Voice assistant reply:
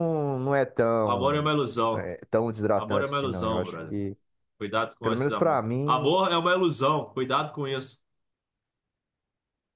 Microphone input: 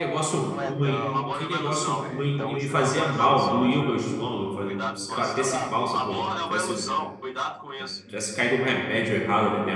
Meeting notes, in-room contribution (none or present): present